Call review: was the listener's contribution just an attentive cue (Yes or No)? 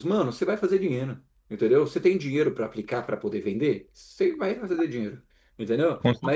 Yes